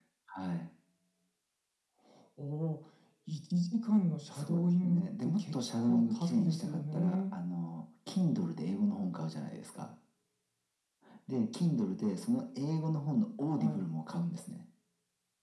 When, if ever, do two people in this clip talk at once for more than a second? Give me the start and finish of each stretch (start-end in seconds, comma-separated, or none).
4.3-7.2